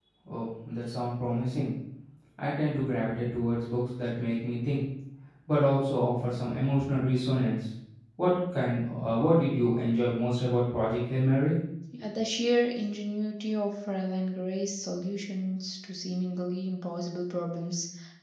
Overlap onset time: none

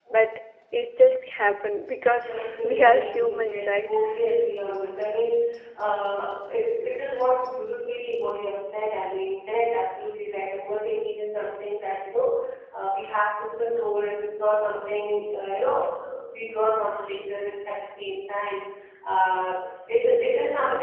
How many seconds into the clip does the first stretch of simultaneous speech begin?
2.2 s

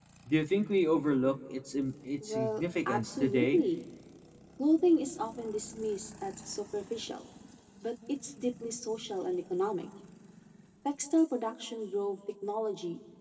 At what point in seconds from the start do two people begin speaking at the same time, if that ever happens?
2.2 s

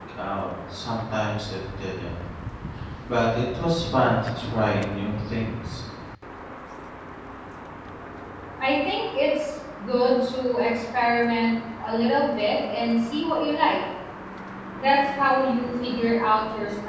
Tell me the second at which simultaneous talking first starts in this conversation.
none

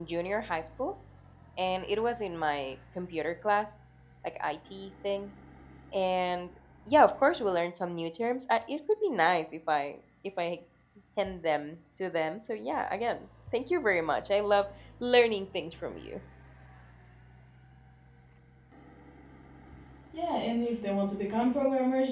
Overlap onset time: none

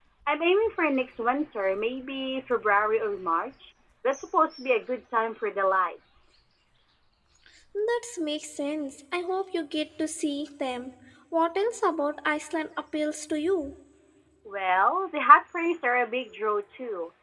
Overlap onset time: none

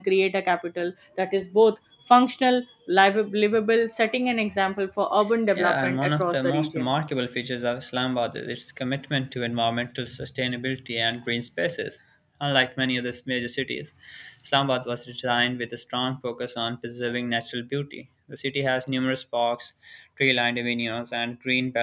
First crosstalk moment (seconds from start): 5.5 s

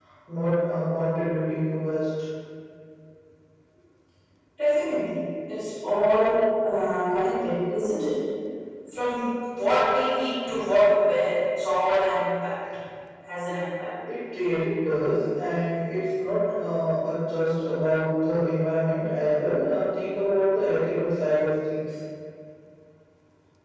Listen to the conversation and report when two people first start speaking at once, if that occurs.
none

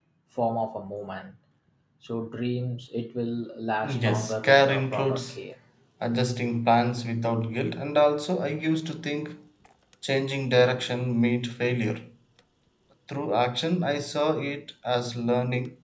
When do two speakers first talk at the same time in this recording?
3.8 s

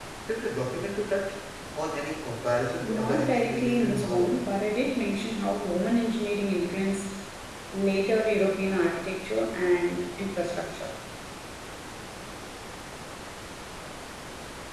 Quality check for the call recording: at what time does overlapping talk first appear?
2.8 s

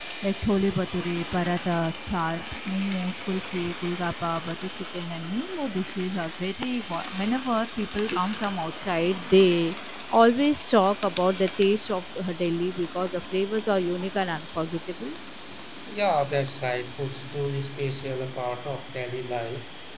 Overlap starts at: none

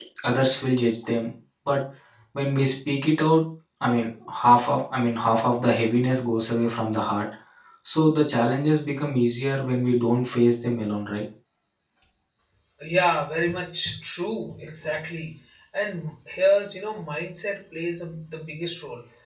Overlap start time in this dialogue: none

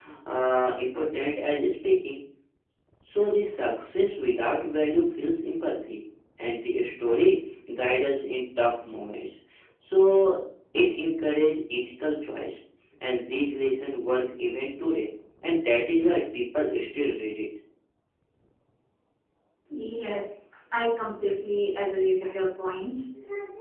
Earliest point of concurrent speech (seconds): none

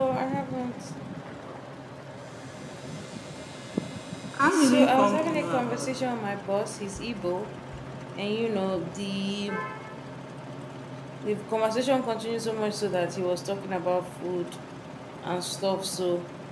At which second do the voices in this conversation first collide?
4.5 s

